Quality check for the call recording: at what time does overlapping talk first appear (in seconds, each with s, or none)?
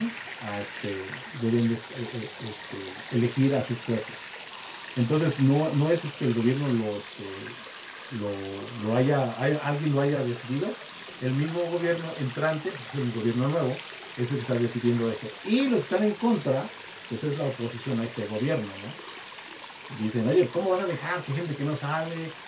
none